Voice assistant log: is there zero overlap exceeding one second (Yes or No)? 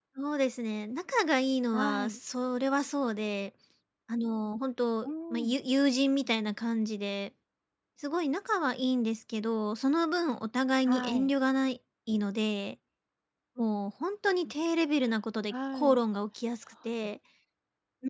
Yes